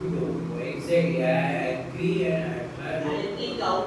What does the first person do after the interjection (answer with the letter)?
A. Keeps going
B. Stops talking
B